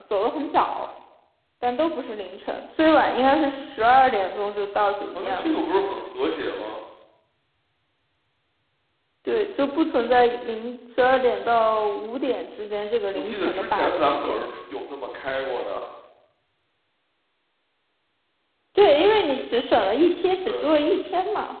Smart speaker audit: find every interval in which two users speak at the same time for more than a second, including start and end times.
13.1-14.4

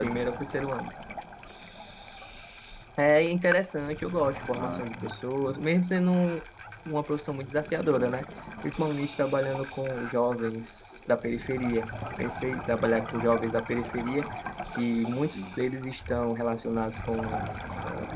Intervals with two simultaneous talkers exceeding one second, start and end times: none

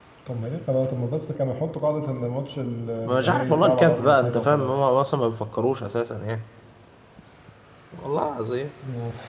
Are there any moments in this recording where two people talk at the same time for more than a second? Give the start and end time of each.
3.0-4.7

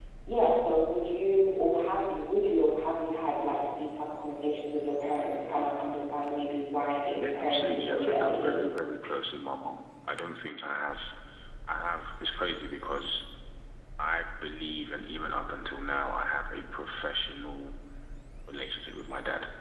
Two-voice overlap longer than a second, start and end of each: 7.1-8.6

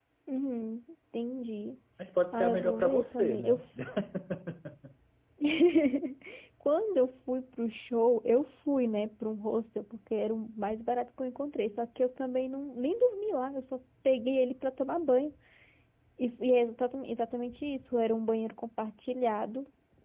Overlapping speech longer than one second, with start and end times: 2.3-3.6

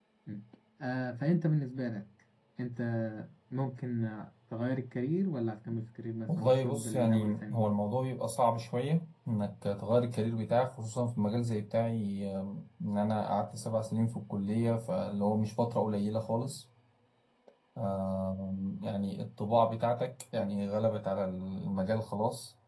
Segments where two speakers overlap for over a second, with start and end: 6.3-7.7

